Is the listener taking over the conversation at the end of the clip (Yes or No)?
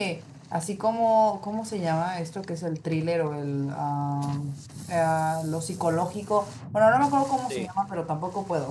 No